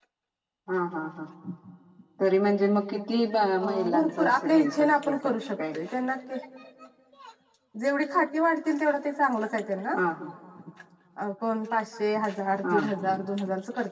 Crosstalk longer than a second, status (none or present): present